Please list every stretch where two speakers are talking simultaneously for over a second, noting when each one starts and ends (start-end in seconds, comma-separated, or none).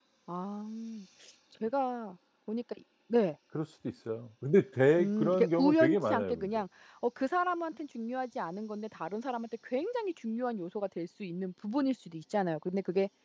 5.0-6.6